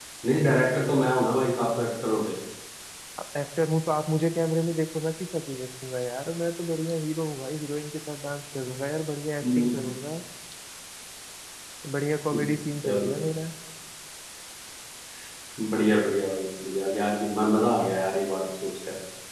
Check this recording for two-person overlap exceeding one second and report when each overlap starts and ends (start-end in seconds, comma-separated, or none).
none